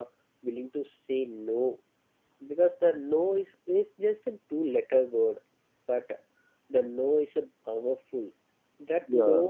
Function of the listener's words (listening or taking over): listening